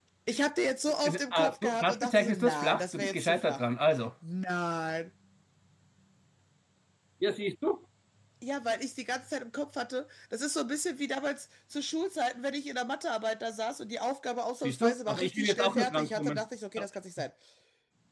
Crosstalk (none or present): present